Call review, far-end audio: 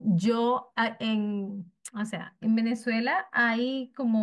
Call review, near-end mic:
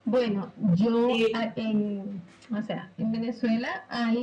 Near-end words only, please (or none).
Y